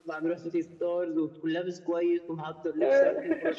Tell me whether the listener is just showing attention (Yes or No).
Yes